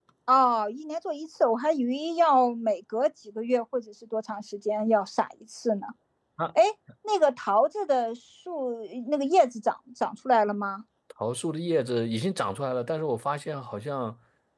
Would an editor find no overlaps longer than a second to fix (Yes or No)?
Yes